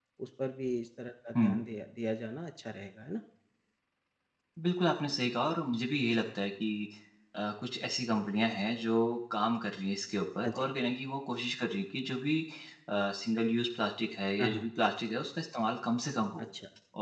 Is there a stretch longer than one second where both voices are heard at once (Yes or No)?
No